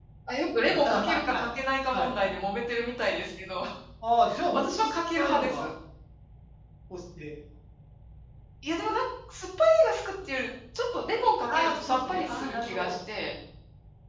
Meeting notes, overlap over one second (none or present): present